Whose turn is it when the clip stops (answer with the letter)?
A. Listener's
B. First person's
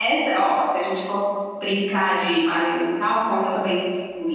B